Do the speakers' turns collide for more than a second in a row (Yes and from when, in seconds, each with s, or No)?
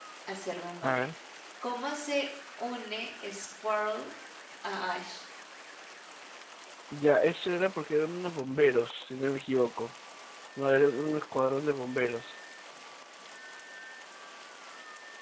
No